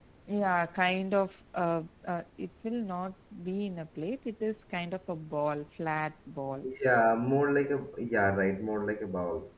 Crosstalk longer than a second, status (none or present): none